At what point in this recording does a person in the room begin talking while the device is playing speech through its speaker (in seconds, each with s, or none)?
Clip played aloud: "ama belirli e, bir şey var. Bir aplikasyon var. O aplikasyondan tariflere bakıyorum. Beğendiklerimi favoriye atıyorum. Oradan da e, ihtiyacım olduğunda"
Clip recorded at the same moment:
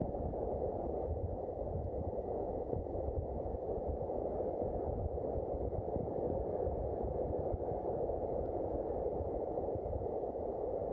none